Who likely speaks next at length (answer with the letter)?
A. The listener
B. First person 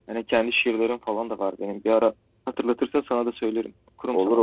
A